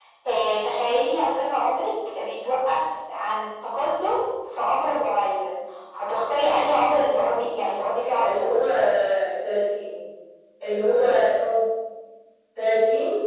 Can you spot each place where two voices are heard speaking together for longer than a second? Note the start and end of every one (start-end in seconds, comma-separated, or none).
none